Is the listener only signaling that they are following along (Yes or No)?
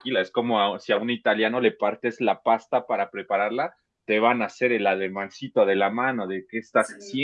No